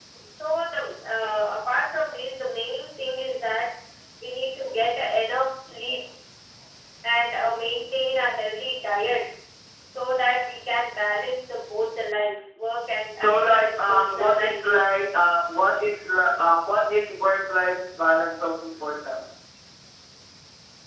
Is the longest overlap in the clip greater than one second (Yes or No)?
Yes